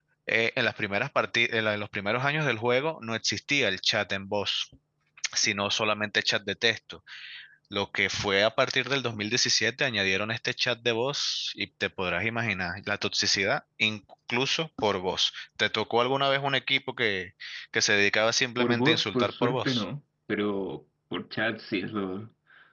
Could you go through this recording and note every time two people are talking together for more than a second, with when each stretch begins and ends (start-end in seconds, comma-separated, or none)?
18.6-19.8